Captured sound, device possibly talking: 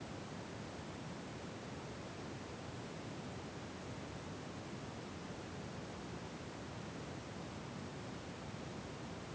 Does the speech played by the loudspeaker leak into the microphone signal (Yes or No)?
No